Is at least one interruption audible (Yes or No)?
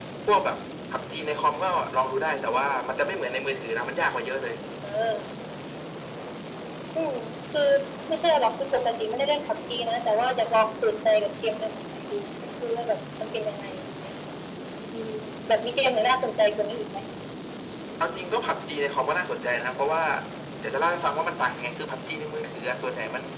No